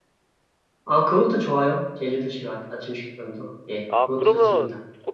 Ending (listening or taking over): taking over